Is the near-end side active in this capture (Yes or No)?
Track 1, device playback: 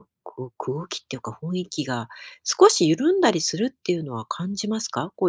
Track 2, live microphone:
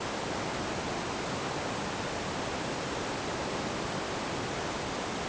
No